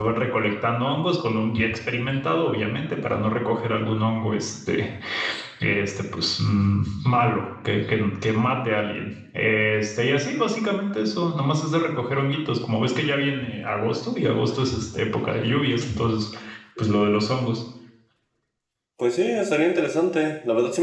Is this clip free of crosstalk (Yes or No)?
Yes